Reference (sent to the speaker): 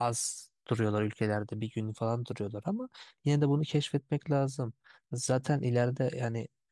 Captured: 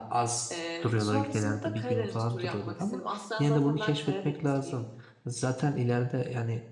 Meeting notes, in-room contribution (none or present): present